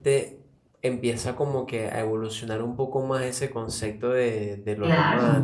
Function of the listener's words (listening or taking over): listening